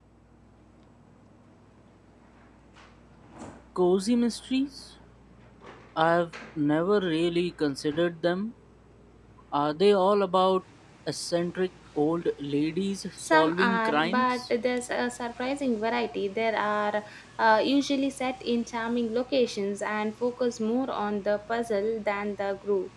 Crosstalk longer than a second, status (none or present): present